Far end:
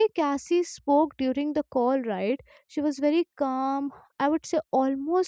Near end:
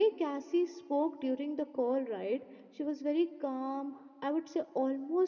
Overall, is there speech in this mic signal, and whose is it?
echo only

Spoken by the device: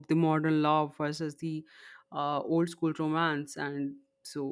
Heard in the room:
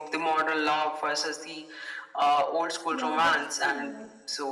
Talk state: both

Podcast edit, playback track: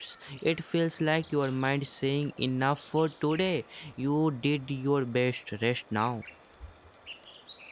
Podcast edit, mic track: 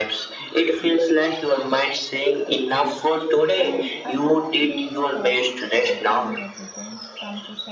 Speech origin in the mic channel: both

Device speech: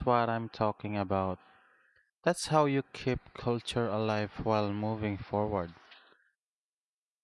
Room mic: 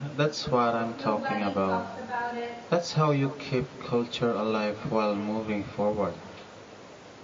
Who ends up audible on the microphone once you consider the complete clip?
both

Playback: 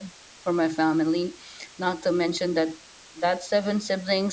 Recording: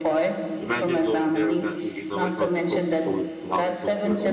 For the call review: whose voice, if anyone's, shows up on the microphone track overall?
both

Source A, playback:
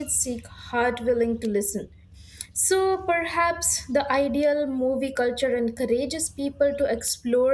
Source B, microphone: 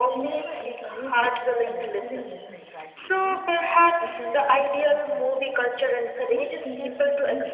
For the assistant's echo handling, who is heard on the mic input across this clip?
both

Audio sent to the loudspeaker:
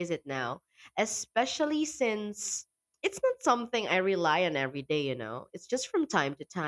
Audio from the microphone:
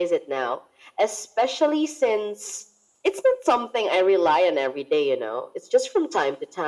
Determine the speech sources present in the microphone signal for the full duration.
echo only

